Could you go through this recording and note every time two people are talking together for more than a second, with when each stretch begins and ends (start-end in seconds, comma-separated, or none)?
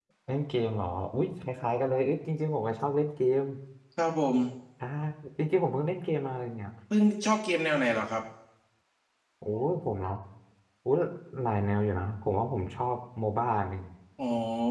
none